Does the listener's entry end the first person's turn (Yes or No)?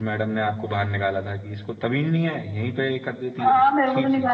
Yes